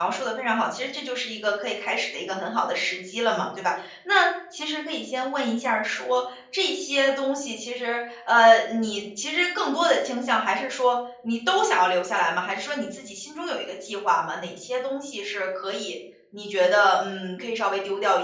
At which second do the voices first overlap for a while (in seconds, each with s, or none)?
none